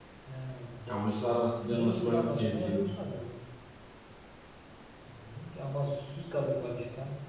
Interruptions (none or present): present